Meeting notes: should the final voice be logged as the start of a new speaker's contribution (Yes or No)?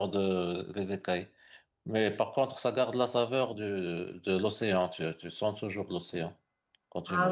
Yes